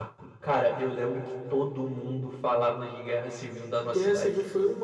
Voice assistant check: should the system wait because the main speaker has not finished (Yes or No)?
No